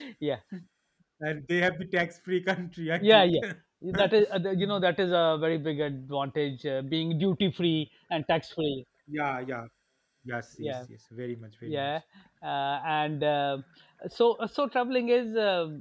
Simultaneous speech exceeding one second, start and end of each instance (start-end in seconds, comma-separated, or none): none